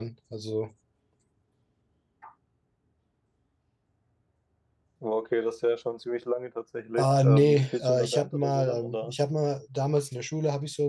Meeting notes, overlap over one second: present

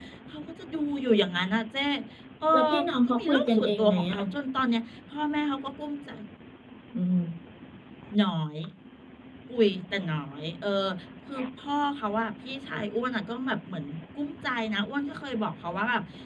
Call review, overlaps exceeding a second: present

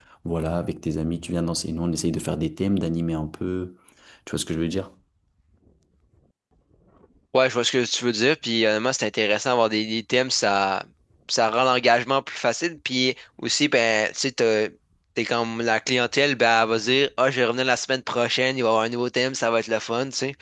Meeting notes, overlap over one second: none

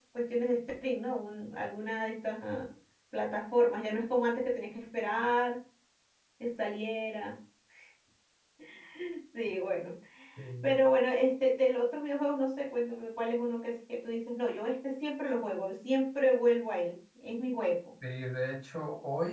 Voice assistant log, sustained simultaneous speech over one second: none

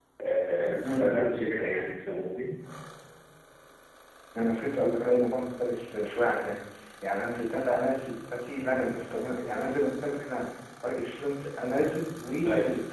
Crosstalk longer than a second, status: none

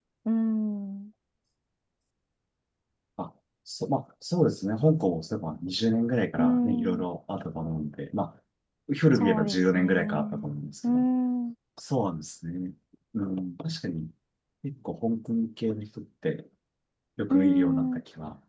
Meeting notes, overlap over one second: present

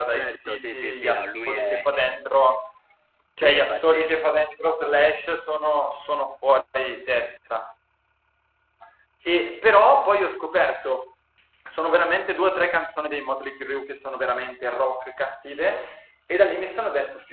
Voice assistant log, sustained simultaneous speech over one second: present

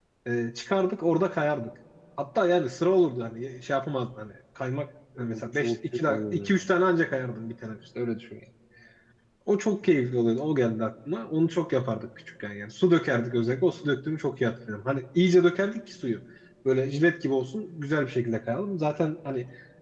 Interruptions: present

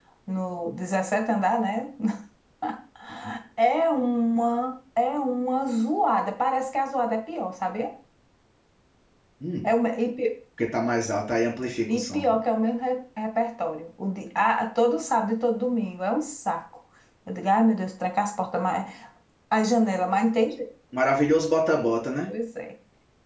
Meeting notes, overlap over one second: none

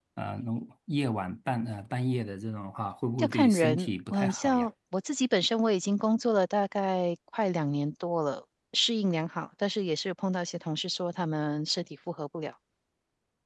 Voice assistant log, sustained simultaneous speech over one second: present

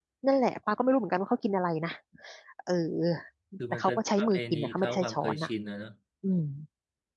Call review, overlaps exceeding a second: present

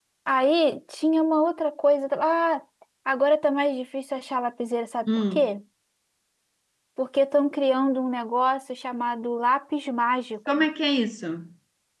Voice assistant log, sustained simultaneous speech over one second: none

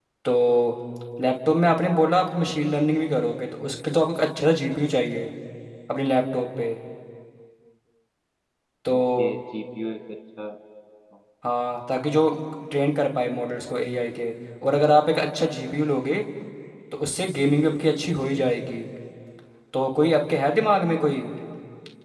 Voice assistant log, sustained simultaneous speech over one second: none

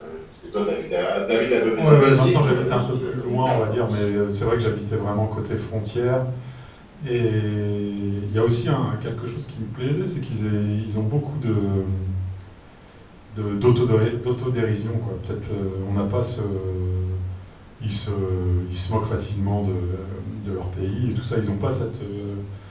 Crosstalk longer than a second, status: present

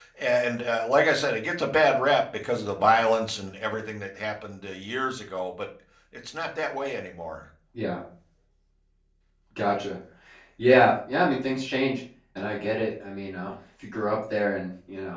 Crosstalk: none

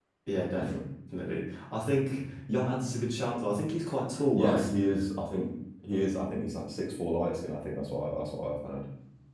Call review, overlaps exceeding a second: none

